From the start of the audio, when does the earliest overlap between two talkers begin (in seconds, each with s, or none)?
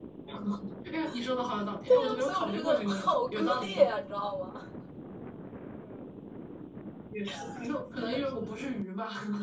1.9 s